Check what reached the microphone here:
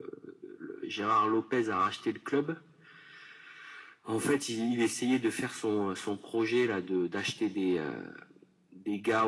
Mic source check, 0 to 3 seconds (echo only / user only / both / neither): echo only